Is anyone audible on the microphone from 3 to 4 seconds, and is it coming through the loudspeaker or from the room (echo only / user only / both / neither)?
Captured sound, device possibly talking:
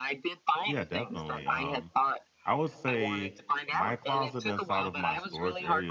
both